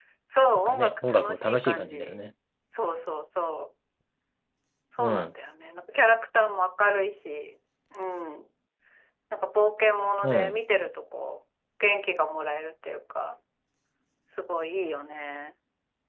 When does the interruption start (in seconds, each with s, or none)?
0.6 s